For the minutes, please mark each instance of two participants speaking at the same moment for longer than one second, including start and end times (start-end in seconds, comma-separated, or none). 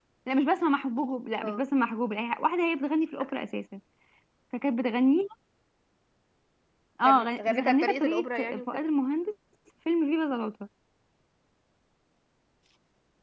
7.0-8.8